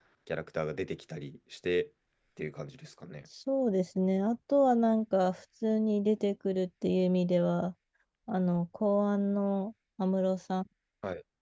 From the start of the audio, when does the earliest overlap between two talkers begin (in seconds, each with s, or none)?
none